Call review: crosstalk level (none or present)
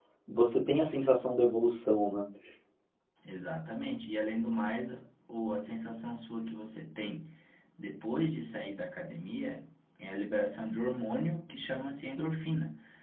none